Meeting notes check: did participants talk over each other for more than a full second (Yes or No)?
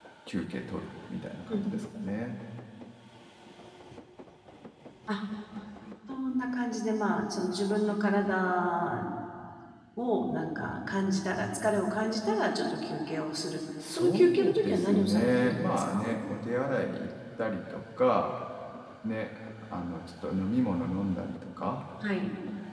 Yes